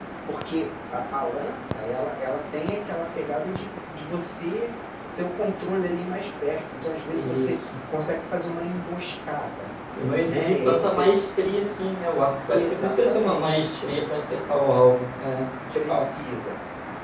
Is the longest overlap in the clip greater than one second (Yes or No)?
Yes